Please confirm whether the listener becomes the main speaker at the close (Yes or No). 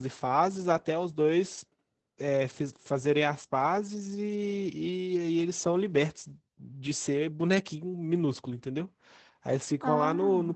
No